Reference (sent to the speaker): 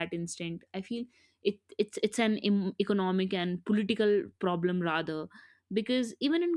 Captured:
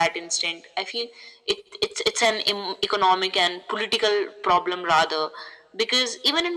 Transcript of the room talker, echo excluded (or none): none